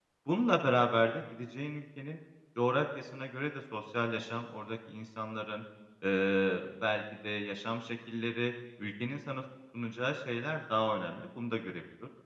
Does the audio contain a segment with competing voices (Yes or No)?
No